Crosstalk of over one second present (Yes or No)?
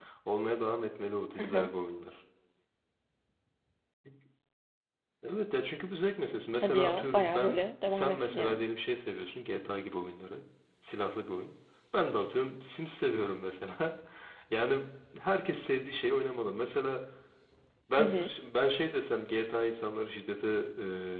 Yes